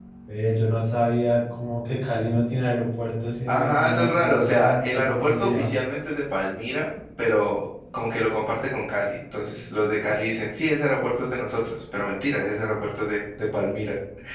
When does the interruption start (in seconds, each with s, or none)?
3.5 s